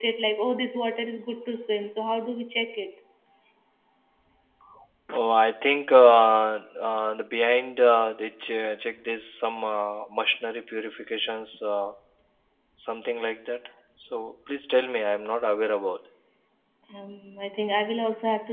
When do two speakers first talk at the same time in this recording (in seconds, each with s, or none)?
none